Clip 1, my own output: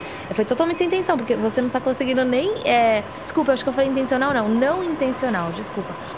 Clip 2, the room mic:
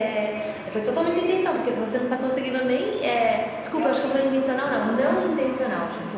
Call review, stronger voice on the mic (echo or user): echo